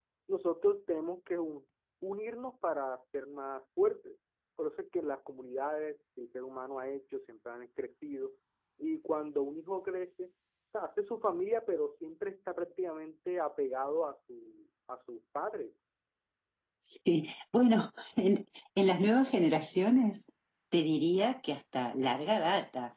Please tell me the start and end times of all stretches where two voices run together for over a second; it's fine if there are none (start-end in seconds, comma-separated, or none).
none